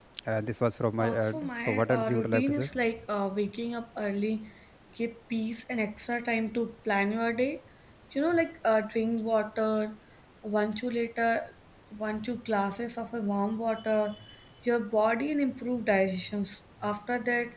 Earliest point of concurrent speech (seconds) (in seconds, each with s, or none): 1.0 s